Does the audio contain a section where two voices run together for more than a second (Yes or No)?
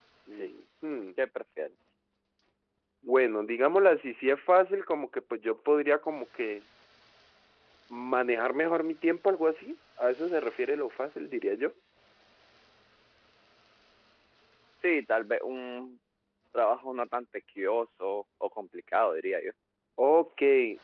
No